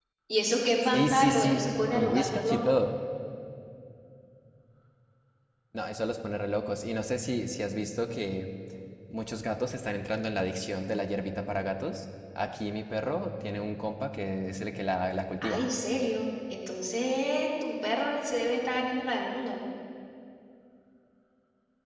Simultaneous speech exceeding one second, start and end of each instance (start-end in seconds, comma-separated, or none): 0.8-2.6